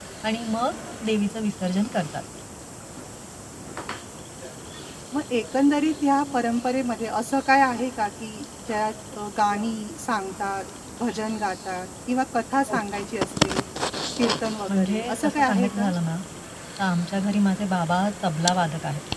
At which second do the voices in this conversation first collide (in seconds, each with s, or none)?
14.7 s